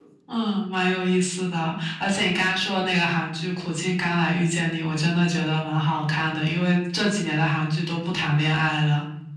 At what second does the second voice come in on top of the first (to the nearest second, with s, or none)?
none